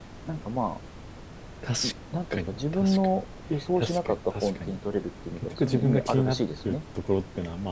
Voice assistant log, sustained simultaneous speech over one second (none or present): present